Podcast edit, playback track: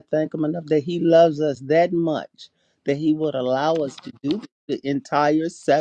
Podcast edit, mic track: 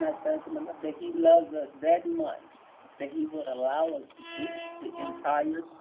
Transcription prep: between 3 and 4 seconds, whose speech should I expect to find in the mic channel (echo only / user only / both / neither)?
echo only